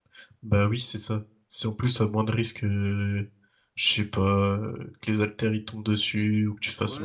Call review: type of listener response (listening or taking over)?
taking over